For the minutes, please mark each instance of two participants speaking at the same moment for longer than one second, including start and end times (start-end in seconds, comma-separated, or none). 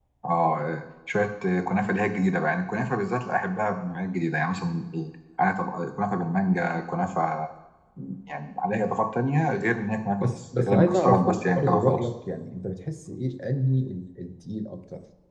10.2-12.1